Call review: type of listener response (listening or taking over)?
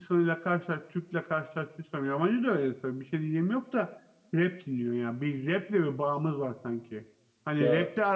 listening